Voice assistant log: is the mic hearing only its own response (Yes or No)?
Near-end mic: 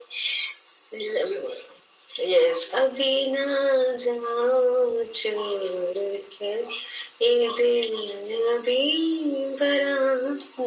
Yes